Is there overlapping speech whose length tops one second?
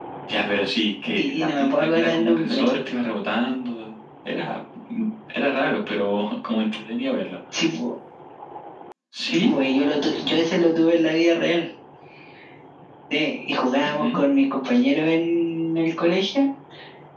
Yes, from 1.2 s

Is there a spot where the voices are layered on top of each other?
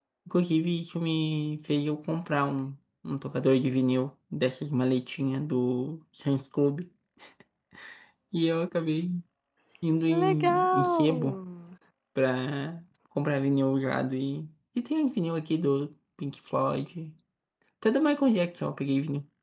Yes, from 10.1 s

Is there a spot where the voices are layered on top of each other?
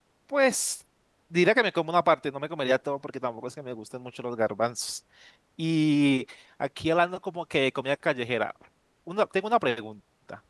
No

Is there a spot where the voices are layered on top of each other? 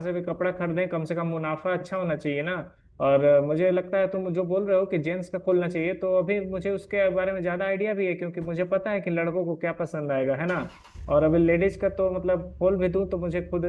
No

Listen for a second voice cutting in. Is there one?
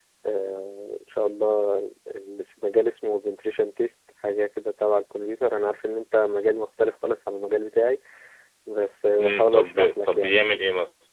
Yes, from 9.2 s

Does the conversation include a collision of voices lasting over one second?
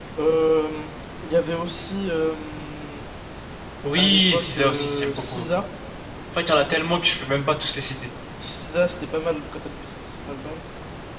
Yes, from 4.0 s

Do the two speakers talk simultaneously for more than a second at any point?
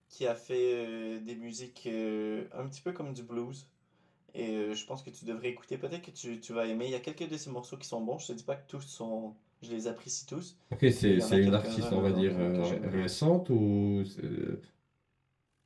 Yes, from 11.0 s

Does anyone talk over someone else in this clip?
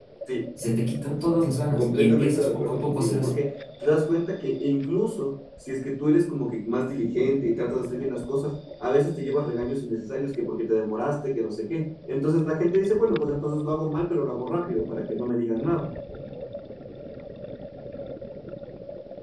Yes, from 1.8 s

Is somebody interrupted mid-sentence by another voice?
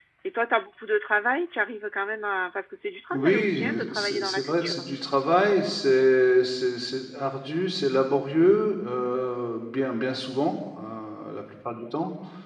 Yes, from 3.1 s

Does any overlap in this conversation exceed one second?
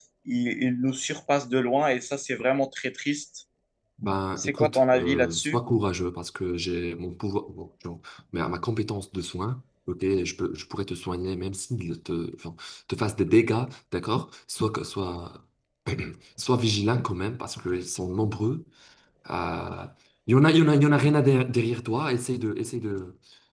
Yes, from 4.4 s

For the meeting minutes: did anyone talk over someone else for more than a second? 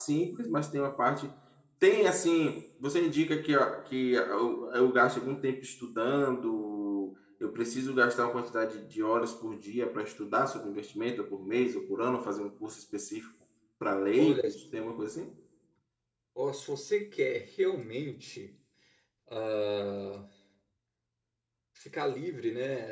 No

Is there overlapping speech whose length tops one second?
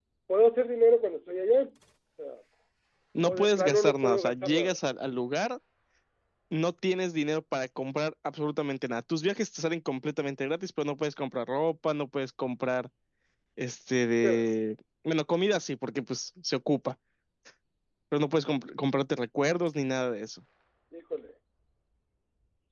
Yes, from 3.2 s

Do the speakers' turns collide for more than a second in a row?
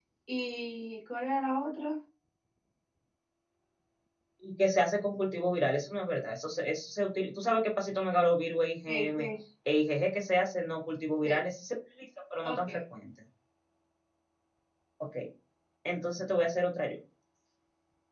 No

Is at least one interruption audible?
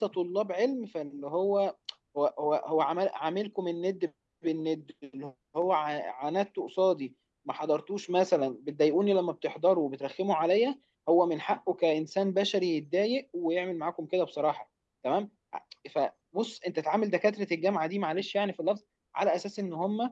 No

